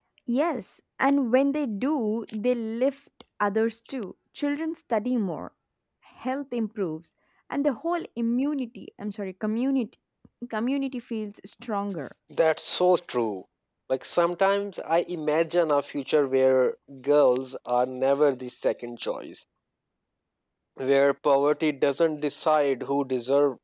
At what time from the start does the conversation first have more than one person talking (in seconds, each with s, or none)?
none